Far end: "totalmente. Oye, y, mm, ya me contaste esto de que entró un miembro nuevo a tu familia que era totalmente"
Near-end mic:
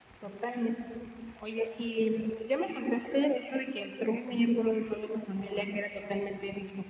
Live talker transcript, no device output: none

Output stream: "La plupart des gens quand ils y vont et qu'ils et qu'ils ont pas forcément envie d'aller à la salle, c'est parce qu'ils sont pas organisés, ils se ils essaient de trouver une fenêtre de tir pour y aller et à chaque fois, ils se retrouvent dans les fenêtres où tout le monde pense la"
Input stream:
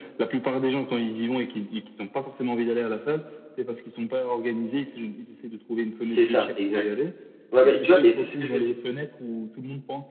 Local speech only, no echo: C'est ça, exact. Ouais, bah, tu vois? Et ça, c'est ce que je me dis.

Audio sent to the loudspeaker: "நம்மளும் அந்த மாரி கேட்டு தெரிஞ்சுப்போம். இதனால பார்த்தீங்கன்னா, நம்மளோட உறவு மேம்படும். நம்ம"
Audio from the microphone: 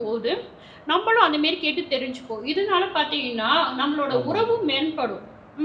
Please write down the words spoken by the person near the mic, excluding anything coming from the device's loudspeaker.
ஆமாமா.

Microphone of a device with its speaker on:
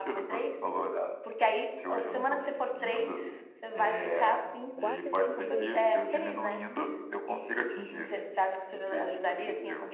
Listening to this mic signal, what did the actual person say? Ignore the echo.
quatro e cinco vezes,

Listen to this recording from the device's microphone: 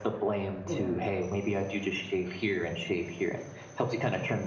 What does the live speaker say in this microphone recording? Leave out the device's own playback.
Well,

